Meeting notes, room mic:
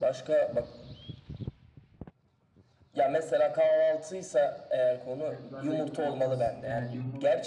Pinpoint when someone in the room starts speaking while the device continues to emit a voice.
5 s

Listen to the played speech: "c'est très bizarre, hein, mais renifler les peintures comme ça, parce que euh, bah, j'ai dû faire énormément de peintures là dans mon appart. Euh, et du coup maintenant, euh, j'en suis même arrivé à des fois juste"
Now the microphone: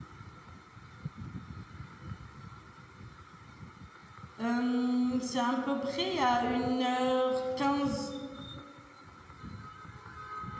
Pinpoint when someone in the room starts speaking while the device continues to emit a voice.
4 s

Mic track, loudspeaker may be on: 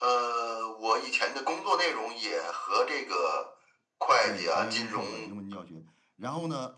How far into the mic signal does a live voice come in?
4 s

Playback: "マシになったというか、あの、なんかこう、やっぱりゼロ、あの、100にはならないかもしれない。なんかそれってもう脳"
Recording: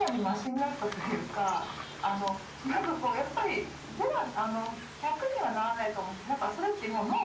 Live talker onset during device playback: none

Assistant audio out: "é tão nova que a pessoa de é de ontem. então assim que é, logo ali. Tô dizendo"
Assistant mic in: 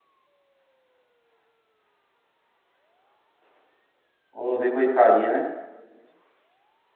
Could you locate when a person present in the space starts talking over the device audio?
4 s

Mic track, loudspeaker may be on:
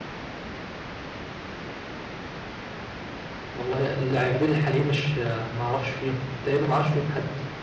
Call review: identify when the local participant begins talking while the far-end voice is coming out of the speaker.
4 s

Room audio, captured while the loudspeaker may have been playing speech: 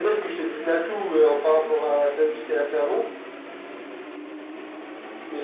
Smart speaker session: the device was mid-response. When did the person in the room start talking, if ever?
none

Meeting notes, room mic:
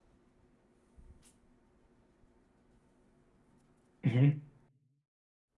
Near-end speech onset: 4 s

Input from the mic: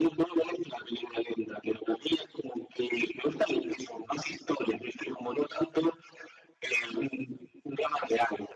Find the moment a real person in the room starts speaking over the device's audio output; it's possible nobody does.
none

